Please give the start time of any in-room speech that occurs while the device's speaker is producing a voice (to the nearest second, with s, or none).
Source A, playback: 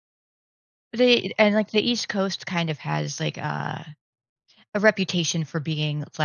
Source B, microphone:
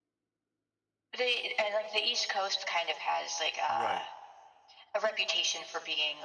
4 s